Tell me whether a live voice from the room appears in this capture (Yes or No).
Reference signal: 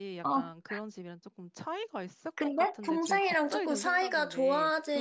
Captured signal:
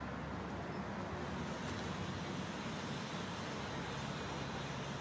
No